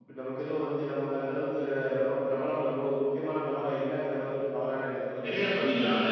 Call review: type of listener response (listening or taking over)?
taking over